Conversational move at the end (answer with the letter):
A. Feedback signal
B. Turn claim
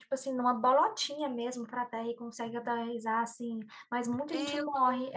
B